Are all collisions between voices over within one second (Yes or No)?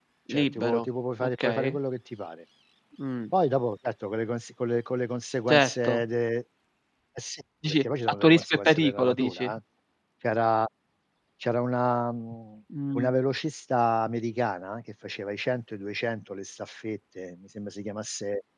No